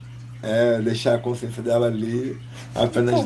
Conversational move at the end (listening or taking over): taking over